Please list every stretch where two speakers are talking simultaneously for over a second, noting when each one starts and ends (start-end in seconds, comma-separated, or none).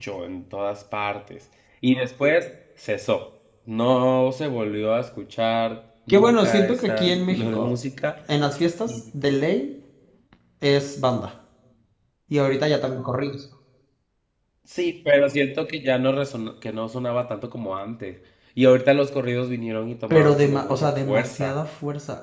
6.1-7.7, 20.1-21.5